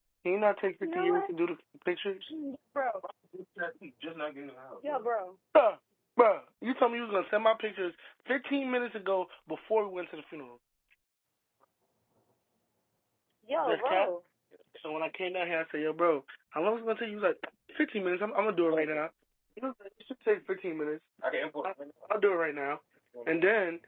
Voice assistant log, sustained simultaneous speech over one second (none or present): none